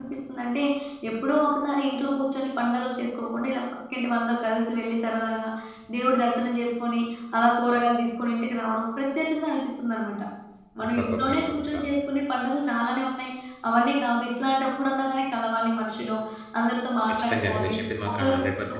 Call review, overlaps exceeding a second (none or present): present